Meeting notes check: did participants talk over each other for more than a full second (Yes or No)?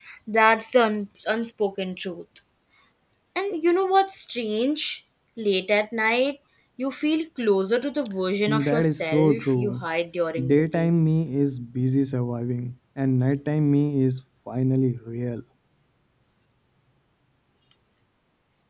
Yes